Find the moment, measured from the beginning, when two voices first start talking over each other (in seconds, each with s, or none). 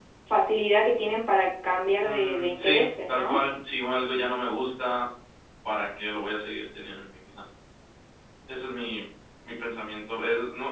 2.0 s